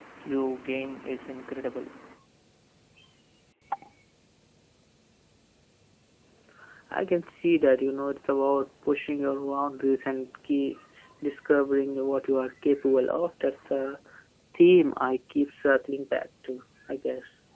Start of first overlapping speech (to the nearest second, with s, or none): none